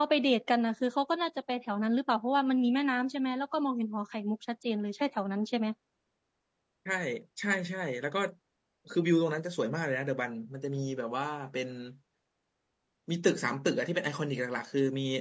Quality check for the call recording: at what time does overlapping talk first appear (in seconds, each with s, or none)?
none